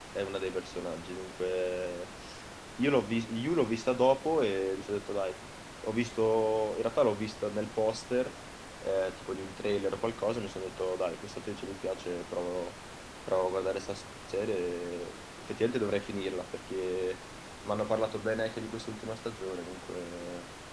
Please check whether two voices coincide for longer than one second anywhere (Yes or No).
No